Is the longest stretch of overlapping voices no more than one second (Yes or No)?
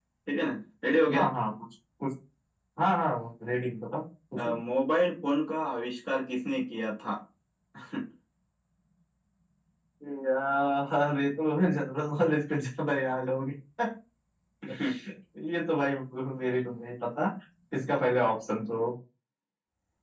Yes